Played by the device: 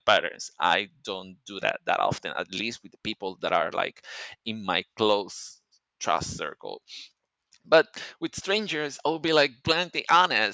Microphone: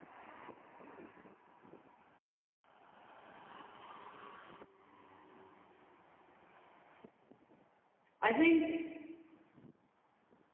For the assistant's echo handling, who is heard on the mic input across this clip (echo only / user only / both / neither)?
user only